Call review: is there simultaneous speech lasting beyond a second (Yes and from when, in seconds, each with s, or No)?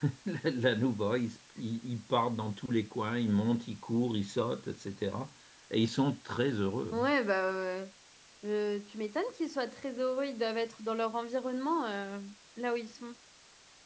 No